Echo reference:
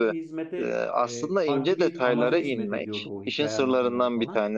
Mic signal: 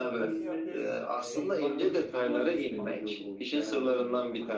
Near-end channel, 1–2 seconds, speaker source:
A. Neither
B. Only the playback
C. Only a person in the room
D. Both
D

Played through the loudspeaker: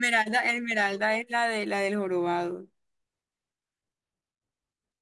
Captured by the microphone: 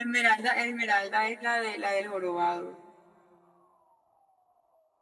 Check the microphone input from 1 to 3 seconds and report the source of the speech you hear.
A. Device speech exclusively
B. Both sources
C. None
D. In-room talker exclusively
A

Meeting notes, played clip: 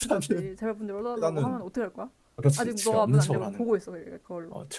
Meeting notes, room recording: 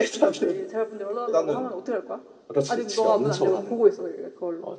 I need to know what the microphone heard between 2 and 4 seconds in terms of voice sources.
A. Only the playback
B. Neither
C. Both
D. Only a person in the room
A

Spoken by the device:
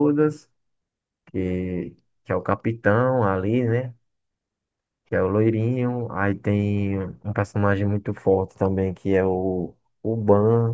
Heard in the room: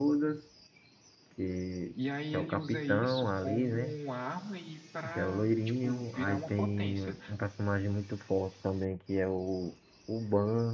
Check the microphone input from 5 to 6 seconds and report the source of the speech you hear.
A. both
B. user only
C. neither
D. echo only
A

